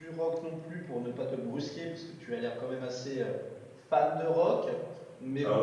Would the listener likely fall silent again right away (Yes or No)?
No